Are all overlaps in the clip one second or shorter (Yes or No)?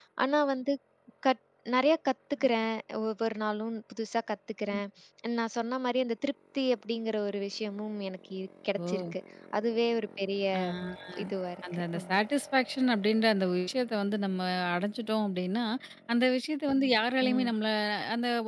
Yes